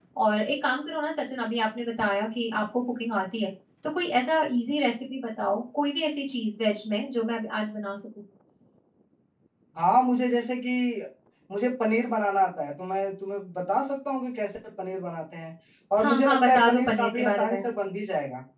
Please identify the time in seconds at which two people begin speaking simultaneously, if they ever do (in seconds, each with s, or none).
16.0 s